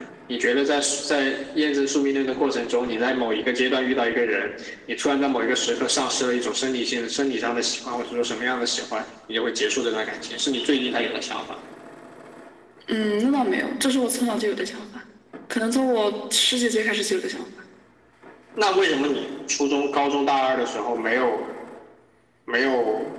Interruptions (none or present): none